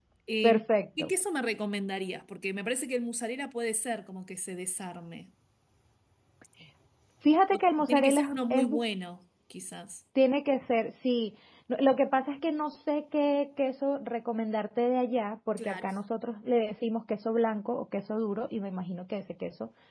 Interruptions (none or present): present